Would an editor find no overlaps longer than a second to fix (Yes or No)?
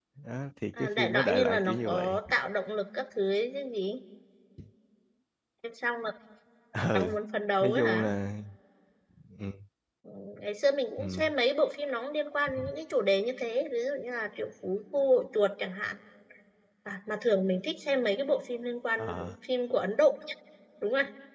No